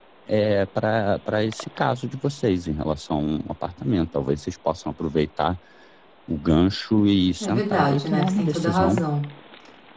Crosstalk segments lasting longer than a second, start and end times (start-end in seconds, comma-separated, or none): 7.4-9.0